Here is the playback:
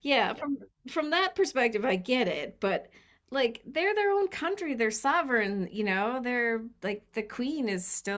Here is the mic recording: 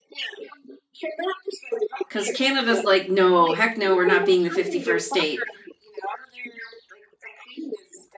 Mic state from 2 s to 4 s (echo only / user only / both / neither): both